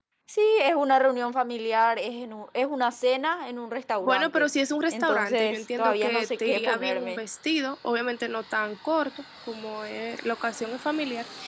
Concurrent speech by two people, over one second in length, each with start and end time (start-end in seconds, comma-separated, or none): 4.9-7.2